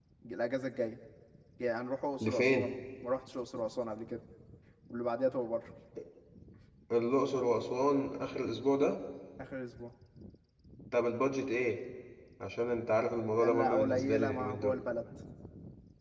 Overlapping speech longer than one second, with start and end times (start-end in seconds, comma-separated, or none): 13.4-14.8